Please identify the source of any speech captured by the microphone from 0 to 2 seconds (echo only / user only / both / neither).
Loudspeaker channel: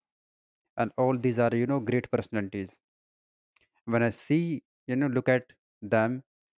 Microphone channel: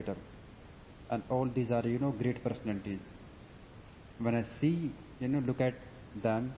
echo only